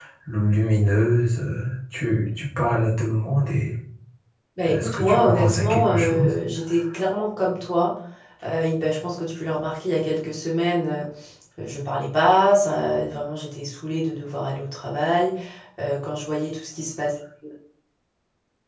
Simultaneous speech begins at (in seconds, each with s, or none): 4.6 s